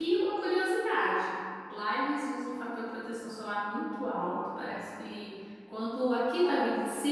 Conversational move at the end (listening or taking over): listening